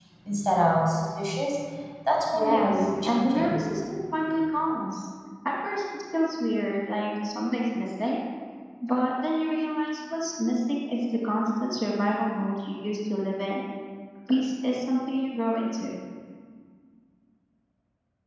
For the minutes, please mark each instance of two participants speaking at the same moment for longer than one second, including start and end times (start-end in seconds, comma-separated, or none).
2.3-3.6